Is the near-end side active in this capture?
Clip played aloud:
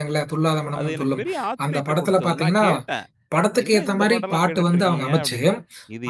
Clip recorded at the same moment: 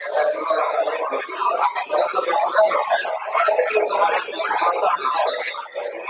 No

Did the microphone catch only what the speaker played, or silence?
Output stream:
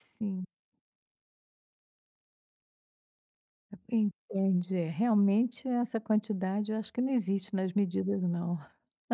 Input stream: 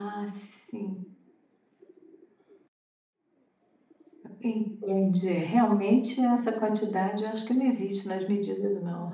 Yes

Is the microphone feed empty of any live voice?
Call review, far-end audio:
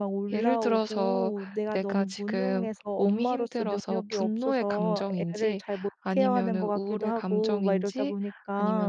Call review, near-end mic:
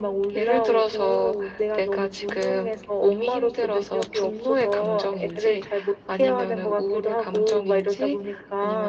Yes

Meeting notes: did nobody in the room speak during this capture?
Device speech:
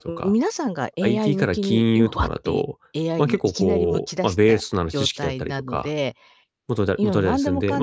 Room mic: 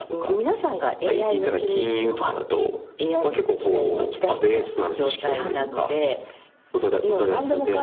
No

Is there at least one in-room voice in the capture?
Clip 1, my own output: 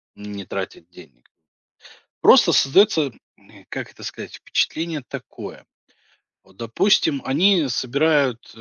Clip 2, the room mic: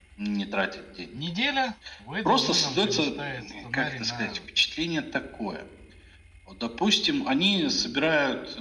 Yes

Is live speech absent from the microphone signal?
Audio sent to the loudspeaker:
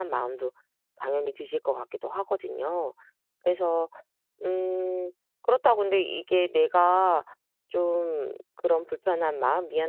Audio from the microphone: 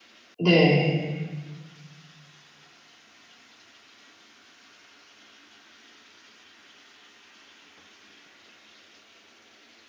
No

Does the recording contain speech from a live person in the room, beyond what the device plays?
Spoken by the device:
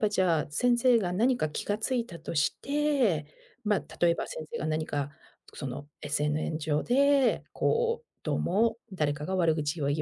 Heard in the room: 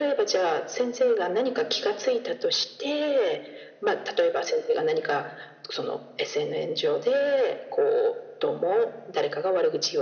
No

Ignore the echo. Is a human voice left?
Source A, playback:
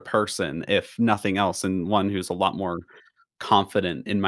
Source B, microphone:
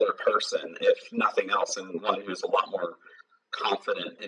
No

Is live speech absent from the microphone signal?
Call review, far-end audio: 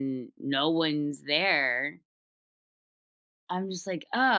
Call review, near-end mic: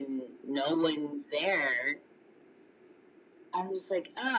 Yes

